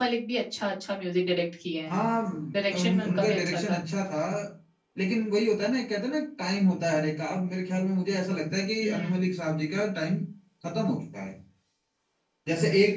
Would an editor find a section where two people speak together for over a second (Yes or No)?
Yes